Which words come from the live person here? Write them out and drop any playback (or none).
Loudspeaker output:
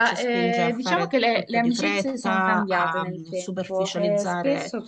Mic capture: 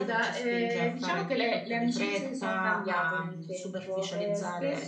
none